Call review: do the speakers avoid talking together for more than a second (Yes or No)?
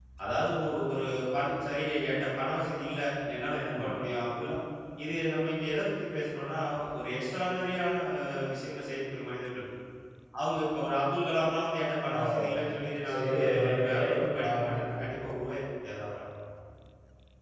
No